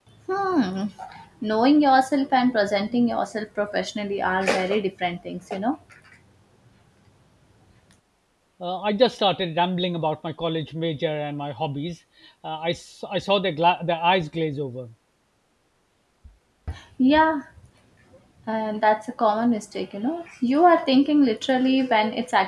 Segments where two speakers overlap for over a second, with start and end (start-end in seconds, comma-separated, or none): none